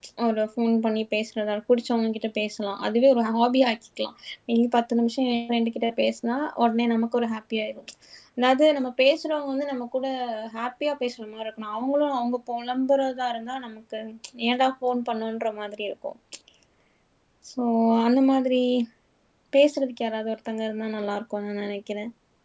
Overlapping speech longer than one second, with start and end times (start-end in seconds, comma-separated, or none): none